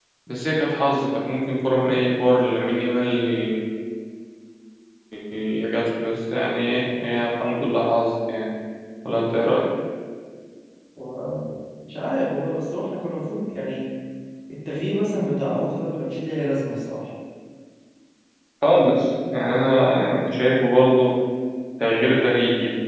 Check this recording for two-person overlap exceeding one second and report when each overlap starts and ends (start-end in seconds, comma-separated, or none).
none